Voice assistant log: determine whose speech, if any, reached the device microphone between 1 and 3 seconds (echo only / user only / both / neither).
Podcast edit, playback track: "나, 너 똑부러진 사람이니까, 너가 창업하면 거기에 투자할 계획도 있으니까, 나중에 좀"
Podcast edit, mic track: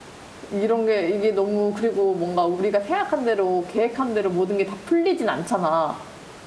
user only